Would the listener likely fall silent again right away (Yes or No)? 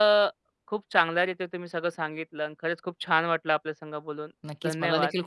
No